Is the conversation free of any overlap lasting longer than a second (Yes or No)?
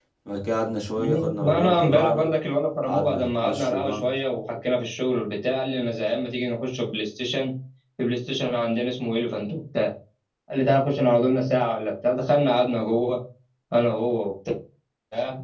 No